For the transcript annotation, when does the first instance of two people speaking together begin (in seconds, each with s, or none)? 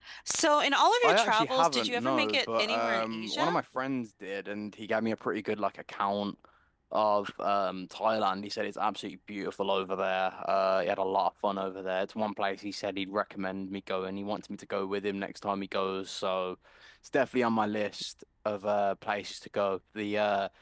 1.0 s